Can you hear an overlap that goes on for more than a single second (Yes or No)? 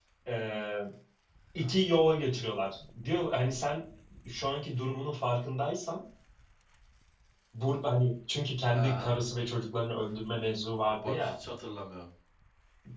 No